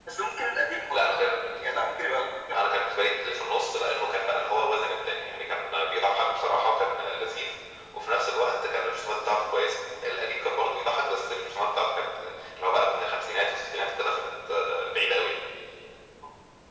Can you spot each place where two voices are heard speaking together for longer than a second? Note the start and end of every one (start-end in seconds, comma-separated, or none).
none